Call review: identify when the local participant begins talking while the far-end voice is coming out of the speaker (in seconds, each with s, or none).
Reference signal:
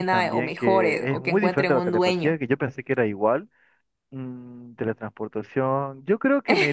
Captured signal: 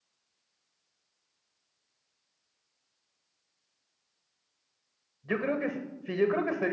5.2 s